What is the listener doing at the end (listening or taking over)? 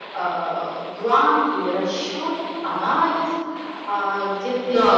taking over